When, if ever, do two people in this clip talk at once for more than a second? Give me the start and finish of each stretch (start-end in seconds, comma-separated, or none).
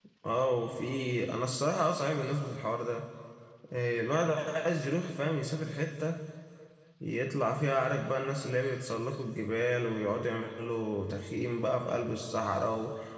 none